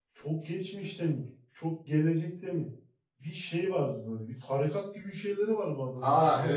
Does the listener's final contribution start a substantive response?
Yes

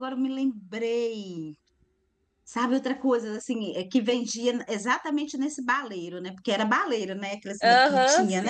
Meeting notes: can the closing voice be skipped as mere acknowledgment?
No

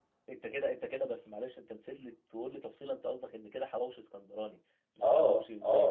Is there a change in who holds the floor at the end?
Yes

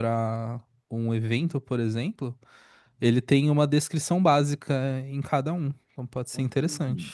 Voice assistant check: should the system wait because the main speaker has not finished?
No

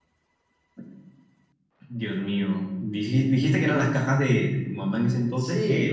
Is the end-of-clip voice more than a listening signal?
Yes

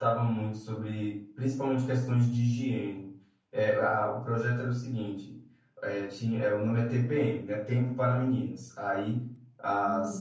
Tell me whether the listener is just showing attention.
Yes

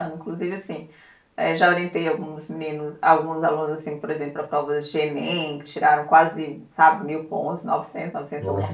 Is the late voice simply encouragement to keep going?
No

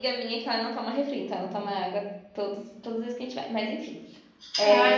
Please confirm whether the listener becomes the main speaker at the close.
Yes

